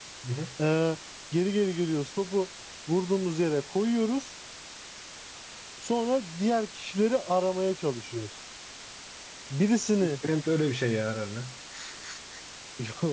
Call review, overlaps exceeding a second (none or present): none